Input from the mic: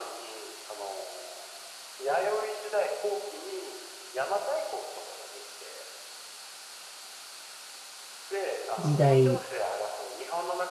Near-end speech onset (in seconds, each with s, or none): 8.8 s